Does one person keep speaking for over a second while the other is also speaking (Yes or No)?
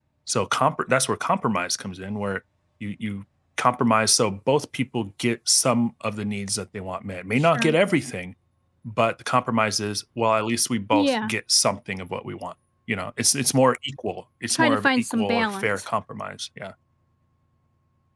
Yes